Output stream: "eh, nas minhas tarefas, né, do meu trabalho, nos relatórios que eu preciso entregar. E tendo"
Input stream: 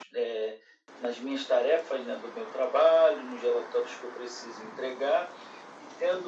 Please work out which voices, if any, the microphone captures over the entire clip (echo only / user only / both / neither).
echo only